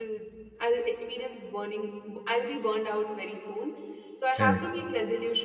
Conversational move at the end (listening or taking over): listening